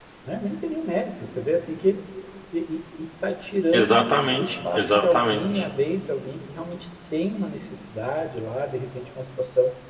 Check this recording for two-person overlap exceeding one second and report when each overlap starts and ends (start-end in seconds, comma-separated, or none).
3.7-5.7